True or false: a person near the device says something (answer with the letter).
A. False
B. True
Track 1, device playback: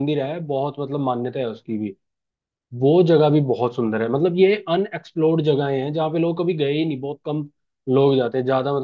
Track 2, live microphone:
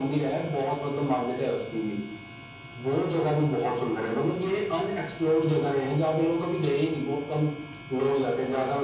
A